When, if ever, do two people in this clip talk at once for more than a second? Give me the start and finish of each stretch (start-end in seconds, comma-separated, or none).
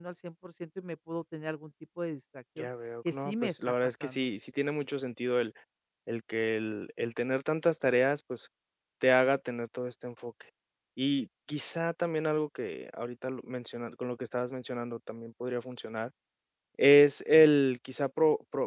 3.0-4.3